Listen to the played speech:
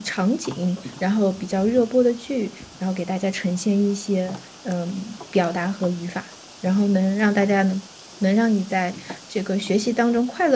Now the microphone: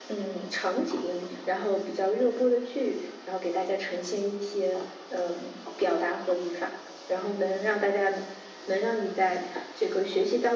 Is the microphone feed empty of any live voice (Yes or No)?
Yes